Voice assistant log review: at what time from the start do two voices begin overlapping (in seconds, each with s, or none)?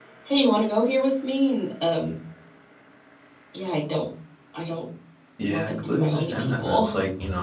5.5 s